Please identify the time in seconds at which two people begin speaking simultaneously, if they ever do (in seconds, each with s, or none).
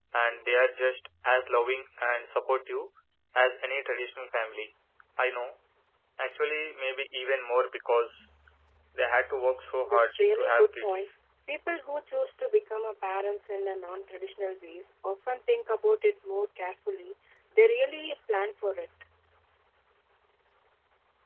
9.8 s